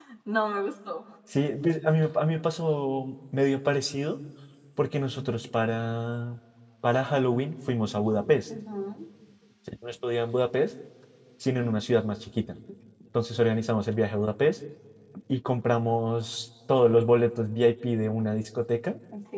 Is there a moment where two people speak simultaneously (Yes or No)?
No